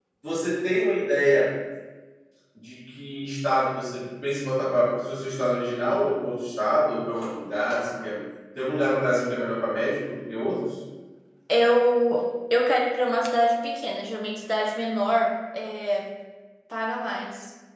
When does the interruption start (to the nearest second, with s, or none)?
none